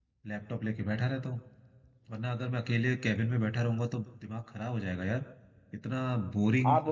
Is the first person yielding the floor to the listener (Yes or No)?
No